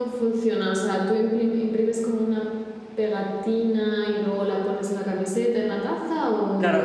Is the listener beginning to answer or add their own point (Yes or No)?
Yes